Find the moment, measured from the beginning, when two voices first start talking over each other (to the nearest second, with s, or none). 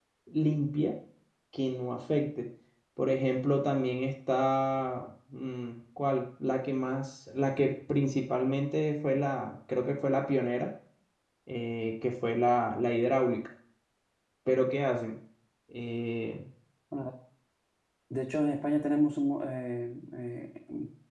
none